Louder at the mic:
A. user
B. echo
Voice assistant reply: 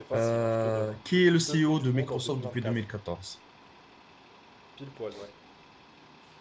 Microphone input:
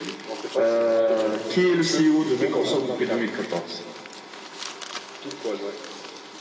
B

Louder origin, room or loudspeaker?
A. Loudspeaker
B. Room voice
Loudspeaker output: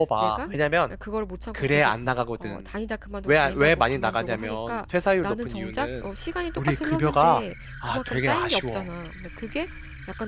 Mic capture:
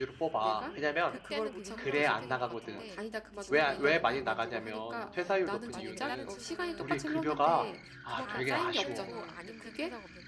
A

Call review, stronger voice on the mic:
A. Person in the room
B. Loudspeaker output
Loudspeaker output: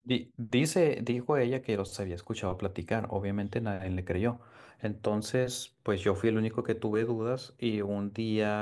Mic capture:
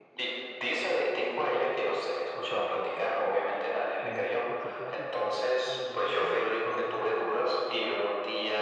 B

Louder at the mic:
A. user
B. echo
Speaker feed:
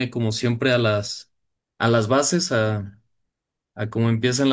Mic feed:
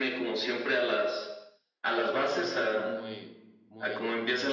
B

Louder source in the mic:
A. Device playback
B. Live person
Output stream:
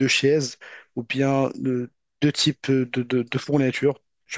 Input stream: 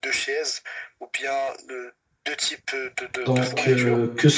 B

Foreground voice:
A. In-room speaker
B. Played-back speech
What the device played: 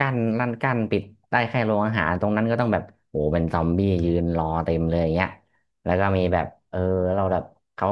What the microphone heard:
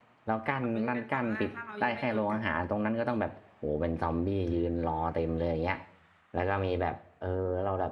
B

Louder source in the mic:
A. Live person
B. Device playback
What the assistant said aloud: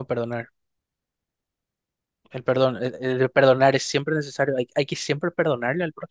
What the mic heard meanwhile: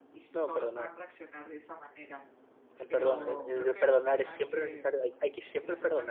B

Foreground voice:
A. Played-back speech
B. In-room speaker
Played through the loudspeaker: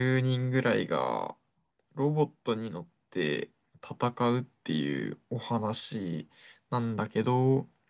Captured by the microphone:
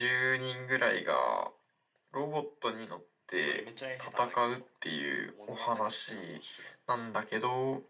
A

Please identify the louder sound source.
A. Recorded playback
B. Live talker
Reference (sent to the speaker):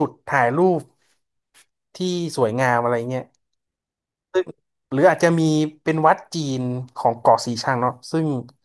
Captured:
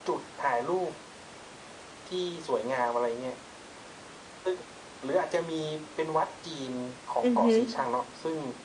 B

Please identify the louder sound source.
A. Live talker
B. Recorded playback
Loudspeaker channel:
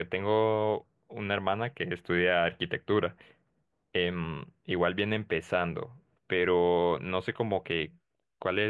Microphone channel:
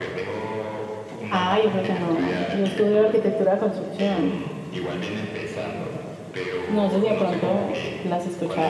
A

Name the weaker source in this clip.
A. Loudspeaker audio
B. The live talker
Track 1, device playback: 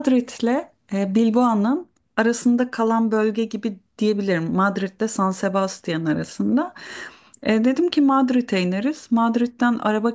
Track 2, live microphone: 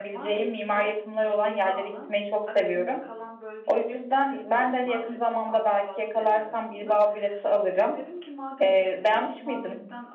A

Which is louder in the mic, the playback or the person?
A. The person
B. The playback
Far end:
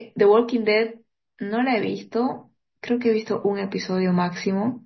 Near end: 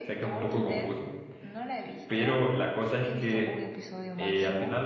A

